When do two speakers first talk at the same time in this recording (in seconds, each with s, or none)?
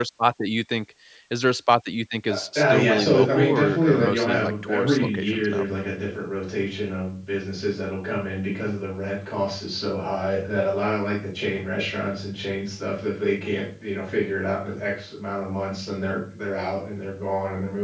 2.3 s